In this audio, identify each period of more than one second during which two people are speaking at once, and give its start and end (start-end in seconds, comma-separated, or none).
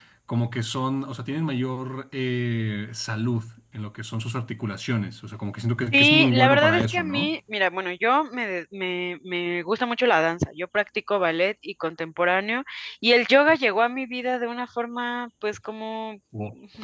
5.9-7.3